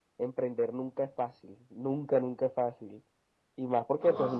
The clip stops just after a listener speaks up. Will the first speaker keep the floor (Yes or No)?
Yes